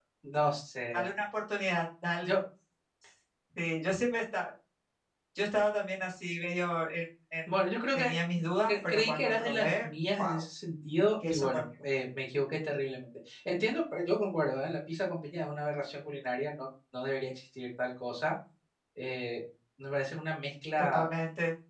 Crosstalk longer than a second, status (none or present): present